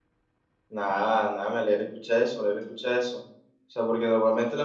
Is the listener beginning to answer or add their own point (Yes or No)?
No